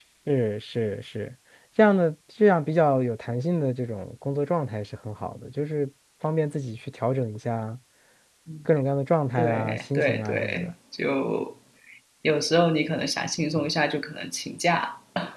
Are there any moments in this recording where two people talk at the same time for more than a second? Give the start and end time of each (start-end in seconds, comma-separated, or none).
9.4-10.7